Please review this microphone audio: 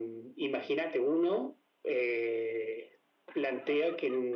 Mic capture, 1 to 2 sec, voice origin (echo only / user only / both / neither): echo only